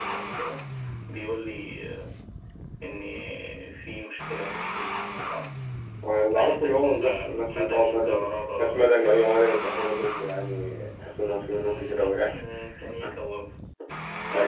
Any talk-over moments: Yes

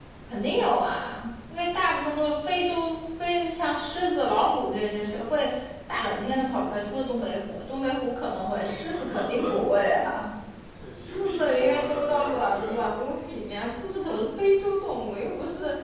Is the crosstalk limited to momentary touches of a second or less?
No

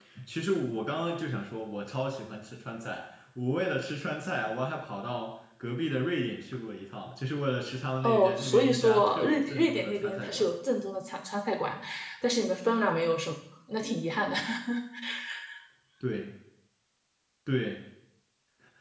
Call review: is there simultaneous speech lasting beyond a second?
Yes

